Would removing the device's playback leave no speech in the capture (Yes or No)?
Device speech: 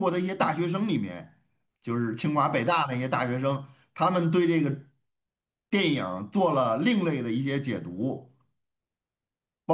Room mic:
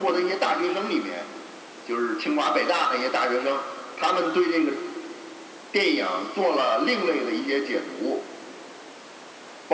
Yes